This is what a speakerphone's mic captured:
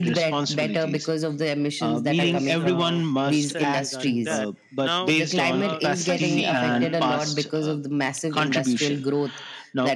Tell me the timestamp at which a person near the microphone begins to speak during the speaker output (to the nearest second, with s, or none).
2 s